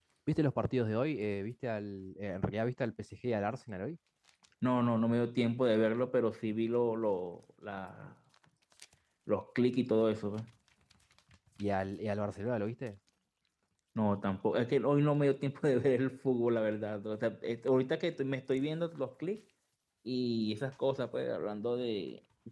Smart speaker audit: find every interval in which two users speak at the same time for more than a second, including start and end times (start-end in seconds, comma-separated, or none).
none